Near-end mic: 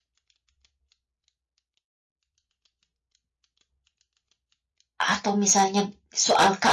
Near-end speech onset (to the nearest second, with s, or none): 5 s